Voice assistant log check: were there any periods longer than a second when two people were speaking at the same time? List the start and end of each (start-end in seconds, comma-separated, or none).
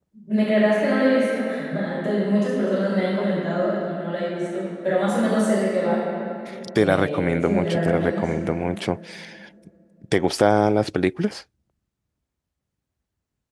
6.8-8.3